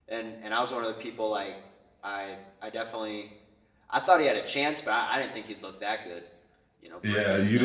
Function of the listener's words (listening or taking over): taking over